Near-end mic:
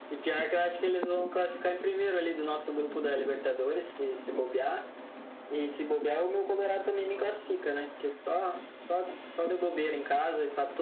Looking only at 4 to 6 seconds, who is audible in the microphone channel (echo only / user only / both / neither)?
echo only